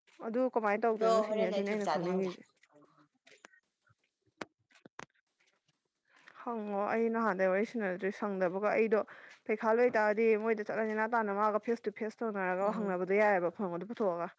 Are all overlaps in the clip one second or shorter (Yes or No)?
No